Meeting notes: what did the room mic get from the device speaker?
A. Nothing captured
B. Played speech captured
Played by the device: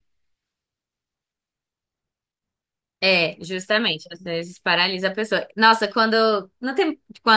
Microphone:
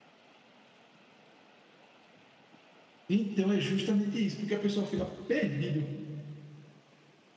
A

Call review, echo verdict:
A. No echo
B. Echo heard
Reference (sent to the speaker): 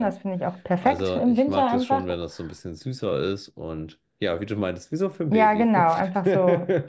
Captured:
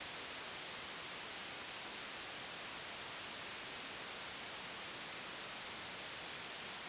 A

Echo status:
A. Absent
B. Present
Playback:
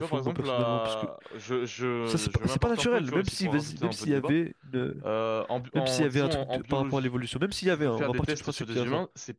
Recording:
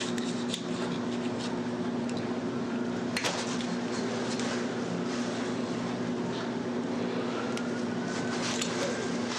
A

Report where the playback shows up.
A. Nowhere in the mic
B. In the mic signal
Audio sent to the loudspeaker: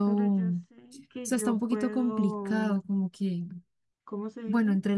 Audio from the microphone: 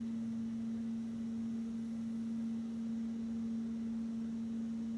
A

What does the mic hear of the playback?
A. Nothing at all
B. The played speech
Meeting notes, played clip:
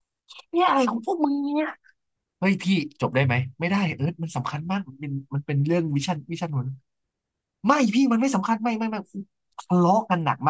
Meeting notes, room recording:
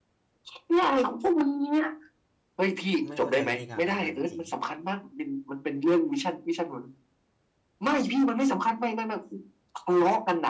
B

